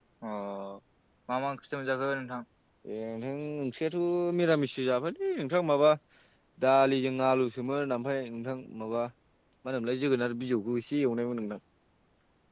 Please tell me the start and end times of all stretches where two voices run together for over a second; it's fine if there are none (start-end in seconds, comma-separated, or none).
none